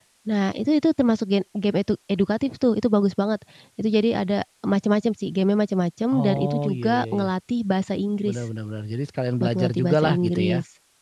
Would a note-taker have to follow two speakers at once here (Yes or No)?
Yes